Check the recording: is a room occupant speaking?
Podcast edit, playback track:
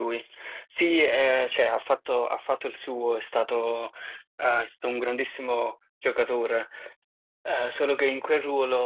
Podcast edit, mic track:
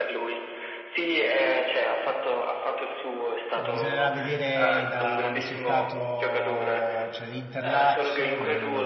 Yes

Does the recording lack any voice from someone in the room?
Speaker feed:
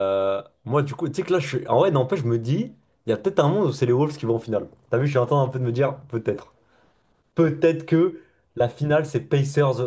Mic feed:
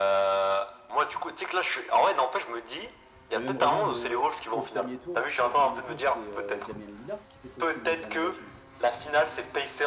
No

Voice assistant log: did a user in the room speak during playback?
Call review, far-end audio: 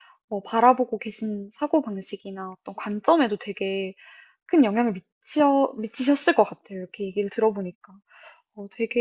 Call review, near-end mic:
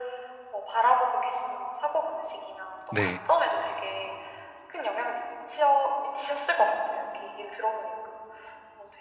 Yes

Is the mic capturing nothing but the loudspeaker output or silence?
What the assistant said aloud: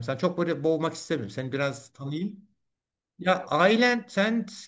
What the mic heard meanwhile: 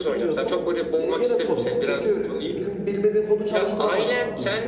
No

